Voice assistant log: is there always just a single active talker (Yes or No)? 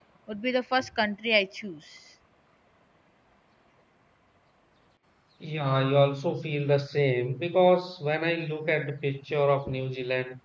Yes